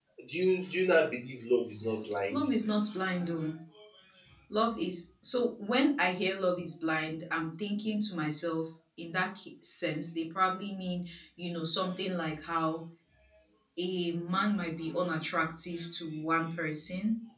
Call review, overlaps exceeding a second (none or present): none